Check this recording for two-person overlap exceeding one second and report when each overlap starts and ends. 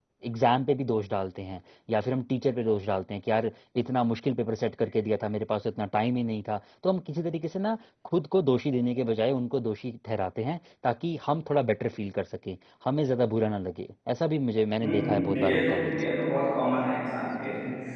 14.8-16.2

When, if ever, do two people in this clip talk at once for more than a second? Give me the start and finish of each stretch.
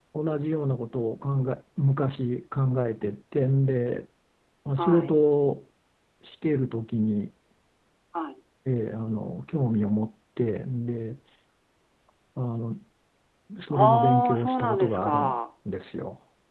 13.7-15.3

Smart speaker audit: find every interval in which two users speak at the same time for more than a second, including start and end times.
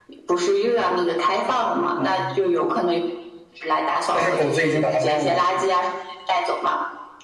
4.1-5.6

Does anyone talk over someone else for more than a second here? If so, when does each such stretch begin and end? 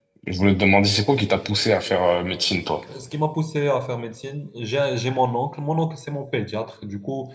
none

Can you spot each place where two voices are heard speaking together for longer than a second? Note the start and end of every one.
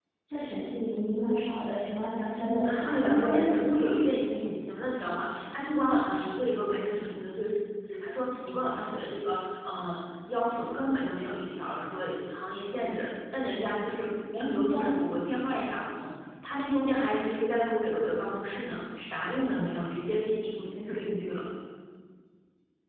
2.6-3.9

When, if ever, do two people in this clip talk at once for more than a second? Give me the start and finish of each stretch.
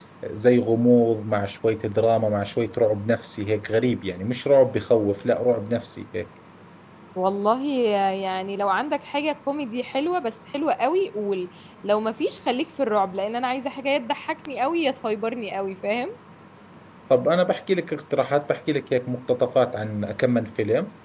none

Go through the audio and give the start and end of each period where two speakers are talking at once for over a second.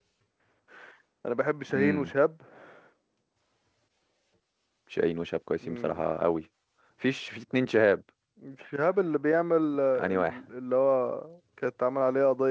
none

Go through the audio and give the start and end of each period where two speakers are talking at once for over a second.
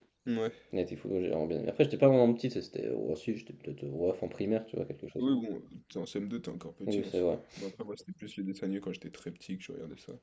none

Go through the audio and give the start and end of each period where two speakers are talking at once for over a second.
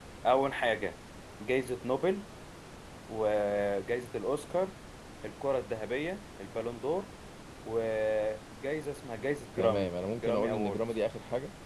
9.6-10.8

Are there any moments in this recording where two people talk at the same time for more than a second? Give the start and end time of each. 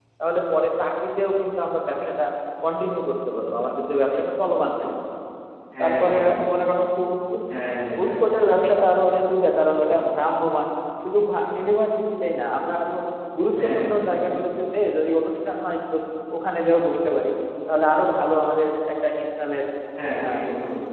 none

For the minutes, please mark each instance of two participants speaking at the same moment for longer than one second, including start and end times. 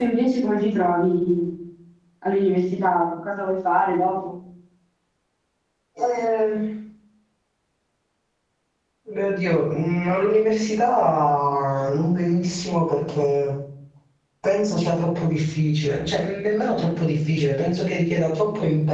none

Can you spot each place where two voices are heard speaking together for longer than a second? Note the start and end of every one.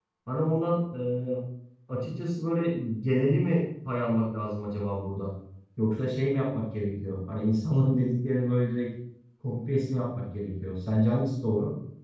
none

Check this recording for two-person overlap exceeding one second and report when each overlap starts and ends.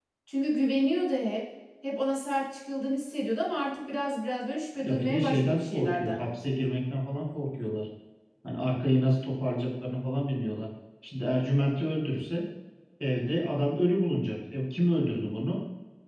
4.8-6.2

